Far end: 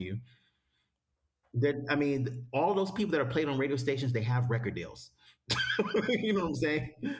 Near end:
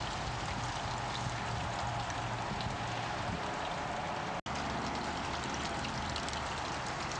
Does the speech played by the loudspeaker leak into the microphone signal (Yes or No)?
No